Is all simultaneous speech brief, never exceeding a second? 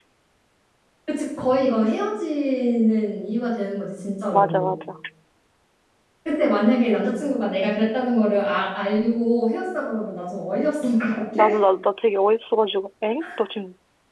Yes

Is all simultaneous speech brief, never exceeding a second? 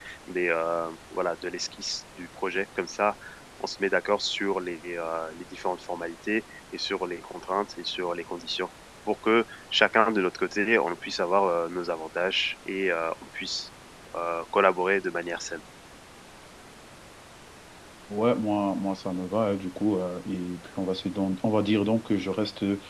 Yes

